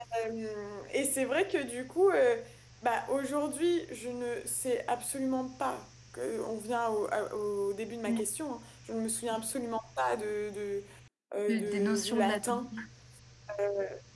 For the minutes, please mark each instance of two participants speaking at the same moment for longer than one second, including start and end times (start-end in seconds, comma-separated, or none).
11.5-12.7